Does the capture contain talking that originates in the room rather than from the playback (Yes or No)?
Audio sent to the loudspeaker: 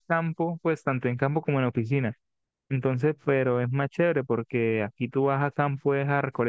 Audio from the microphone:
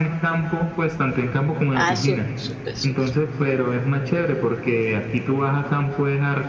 Yes